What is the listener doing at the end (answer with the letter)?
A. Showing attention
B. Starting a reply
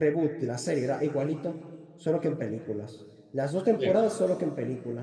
A